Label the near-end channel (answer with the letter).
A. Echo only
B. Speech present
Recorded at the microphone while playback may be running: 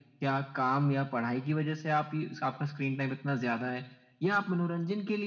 A